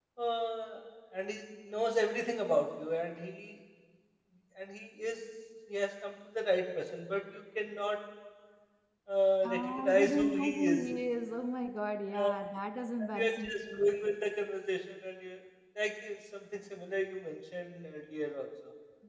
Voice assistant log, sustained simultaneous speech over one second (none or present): present